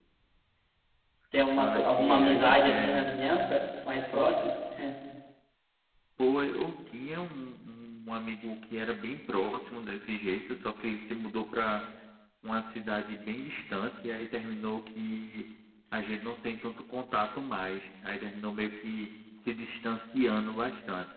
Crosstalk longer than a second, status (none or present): present